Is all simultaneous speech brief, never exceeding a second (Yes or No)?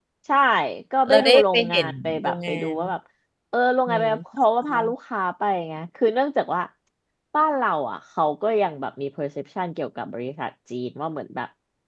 No